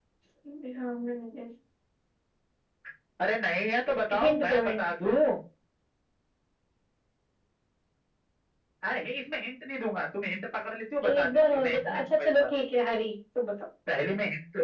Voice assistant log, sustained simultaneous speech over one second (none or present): present